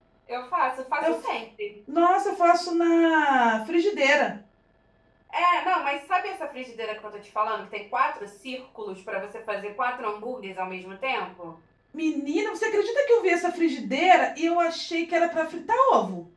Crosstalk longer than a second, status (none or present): none